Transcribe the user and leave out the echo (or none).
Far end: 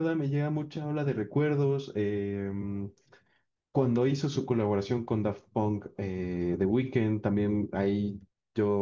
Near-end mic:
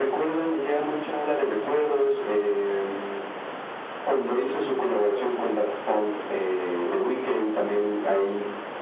none